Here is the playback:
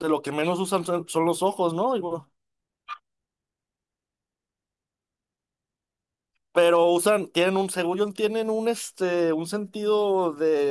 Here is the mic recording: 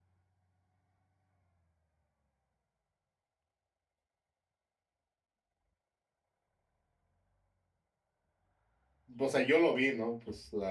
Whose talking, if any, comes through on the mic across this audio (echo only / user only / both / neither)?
user only